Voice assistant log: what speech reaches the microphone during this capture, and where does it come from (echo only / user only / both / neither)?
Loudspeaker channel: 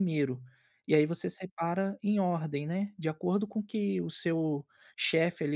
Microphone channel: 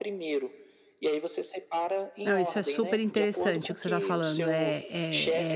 both